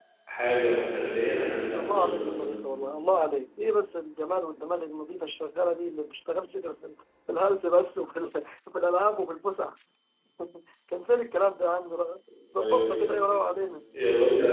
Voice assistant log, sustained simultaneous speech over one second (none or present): none